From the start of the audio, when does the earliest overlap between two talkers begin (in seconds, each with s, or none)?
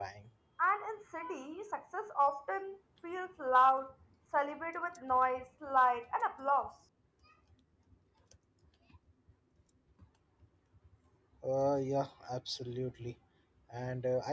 none